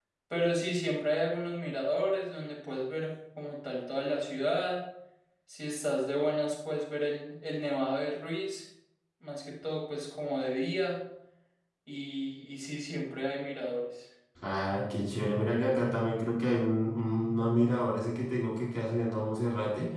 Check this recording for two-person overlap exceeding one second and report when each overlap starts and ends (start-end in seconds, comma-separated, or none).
none